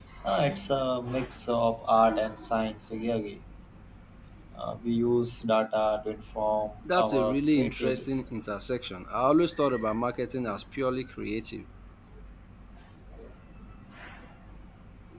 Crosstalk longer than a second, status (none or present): present